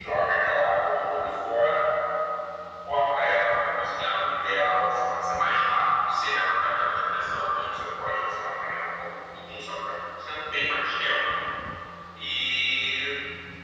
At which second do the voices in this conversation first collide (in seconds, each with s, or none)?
none